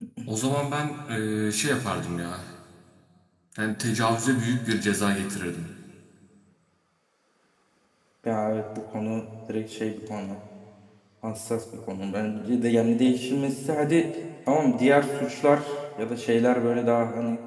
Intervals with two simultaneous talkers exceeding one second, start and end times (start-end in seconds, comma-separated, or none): none